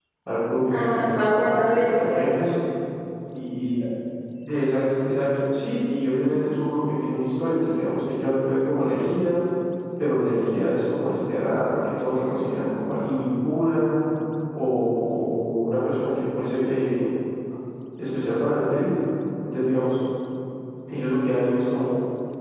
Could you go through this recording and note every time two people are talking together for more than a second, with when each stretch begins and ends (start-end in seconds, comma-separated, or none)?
0.7-2.2